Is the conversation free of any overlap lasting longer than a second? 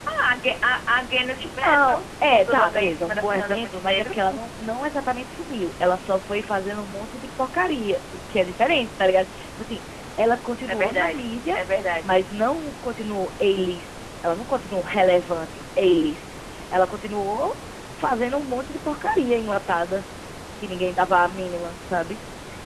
No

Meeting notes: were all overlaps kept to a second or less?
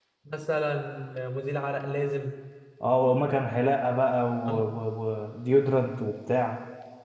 Yes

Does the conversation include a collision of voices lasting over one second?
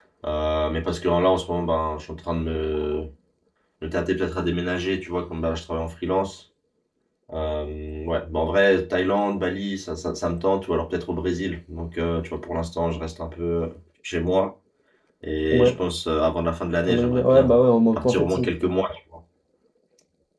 Yes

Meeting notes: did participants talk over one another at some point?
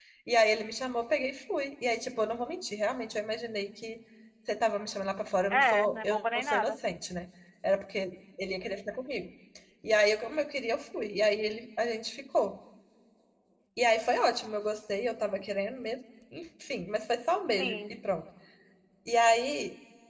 Yes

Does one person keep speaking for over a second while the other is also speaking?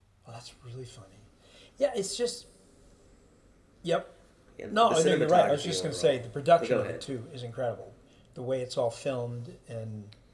Yes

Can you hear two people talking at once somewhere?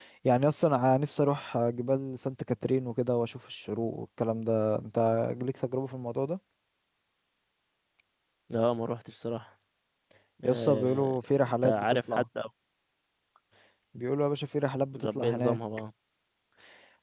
Yes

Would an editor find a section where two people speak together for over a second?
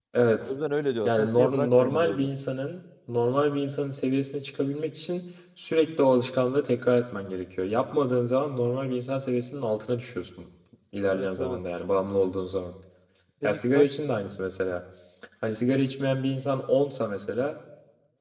Yes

